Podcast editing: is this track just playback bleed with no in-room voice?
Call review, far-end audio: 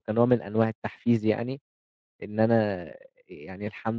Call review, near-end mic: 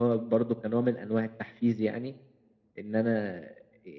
Yes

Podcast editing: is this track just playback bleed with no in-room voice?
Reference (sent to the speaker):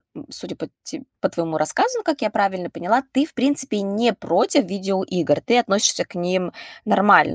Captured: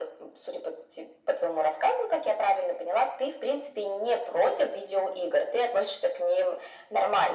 Yes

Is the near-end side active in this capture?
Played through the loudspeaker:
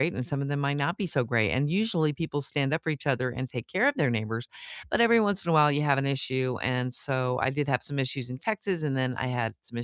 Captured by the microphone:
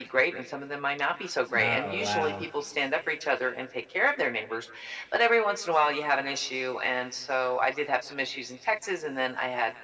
Yes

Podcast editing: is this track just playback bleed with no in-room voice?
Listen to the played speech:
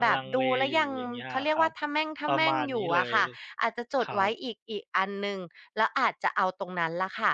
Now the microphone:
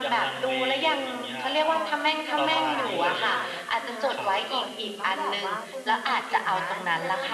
No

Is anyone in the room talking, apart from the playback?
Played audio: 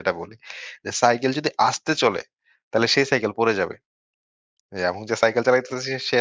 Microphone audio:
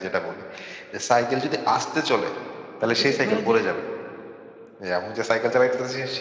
Yes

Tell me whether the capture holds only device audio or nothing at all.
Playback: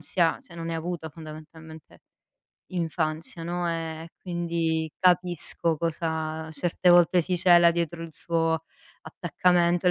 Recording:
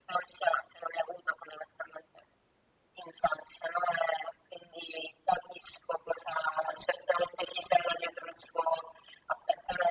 Yes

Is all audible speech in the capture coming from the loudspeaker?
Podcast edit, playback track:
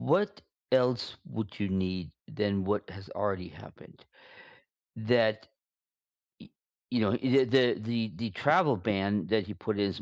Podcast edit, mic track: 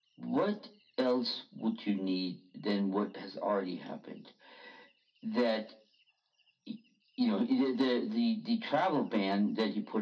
Yes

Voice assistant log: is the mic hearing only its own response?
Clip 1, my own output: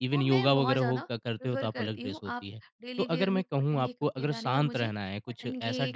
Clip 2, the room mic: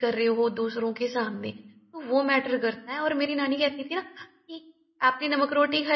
No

